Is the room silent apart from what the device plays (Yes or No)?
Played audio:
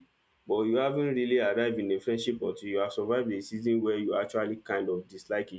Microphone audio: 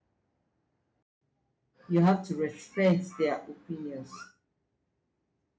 No